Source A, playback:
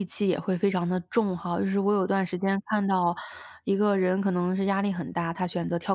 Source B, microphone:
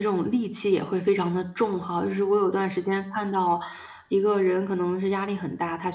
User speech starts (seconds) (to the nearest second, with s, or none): none